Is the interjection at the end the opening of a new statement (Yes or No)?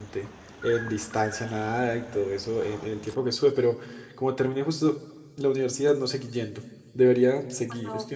No